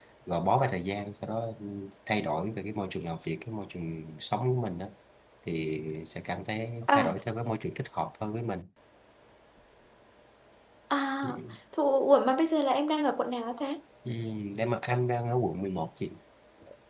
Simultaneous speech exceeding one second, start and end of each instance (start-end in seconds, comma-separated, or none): none